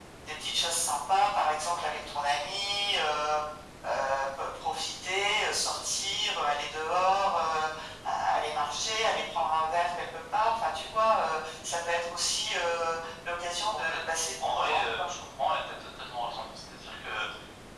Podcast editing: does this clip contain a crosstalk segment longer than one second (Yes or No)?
Yes